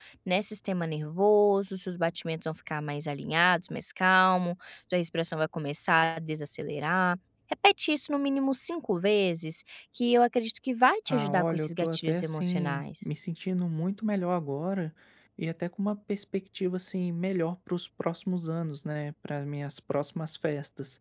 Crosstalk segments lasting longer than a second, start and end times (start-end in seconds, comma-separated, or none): 11.1-13.1